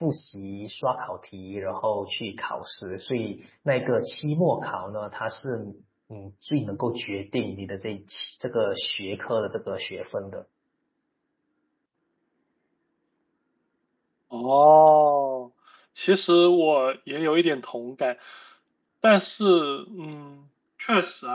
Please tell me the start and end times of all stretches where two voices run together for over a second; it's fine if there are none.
none

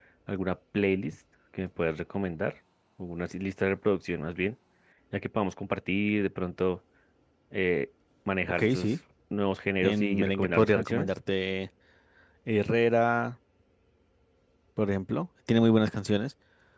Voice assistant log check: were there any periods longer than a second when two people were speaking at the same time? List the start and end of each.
9.8-11.1

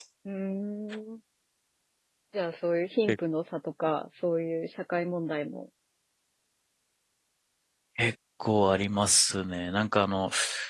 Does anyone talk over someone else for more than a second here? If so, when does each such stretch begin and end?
none

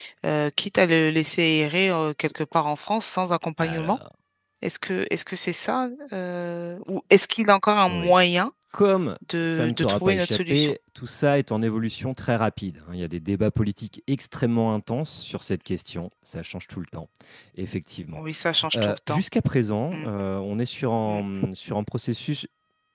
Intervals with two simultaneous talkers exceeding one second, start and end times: 9.4-10.7

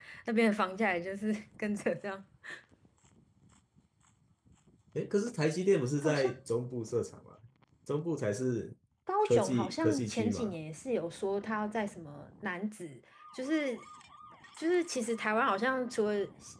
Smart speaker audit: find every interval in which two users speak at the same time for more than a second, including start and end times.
9.3-10.5

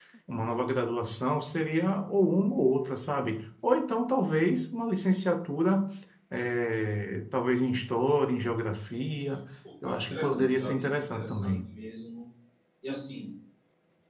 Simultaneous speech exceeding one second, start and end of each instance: 10.1-11.5

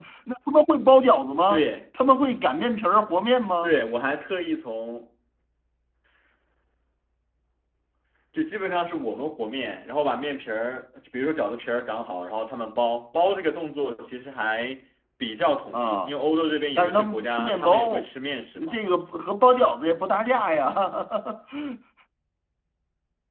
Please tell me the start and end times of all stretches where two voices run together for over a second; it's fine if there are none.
16.8-18.1

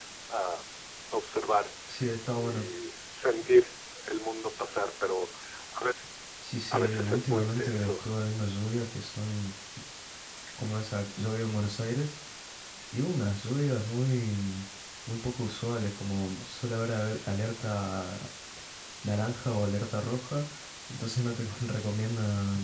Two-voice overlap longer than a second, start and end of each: 6.7-7.9

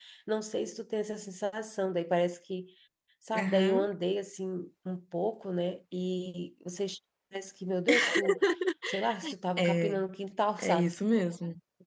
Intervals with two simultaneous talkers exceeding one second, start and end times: none

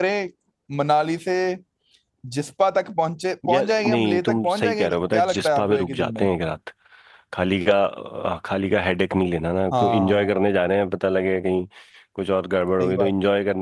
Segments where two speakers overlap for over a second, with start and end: 3.5-6.3

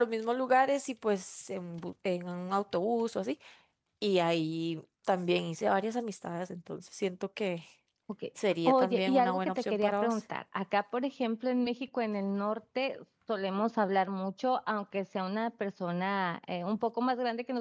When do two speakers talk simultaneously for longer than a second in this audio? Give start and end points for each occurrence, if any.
8.7-10.2

